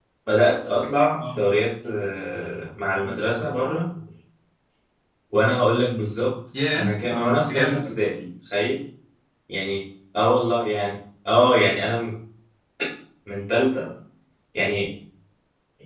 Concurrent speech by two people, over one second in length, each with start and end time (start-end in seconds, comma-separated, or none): 6.7-7.9